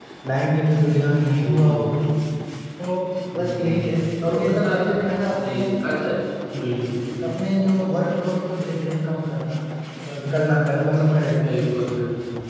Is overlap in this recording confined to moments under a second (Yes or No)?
No